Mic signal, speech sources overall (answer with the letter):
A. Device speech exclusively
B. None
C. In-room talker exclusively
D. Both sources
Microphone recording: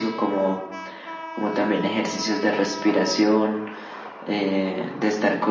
A